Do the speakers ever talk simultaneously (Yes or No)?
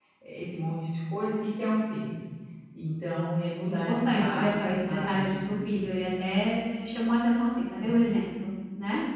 Yes